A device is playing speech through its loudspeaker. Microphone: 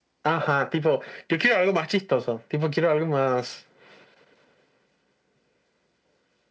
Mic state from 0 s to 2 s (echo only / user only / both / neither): echo only